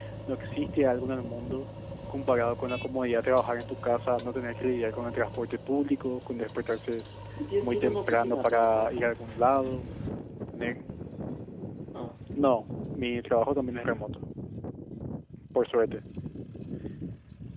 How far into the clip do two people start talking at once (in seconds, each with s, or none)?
7.6 s